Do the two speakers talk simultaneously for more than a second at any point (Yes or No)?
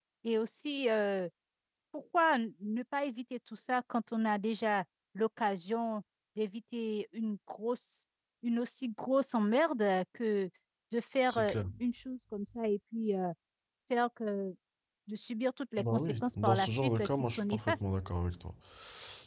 Yes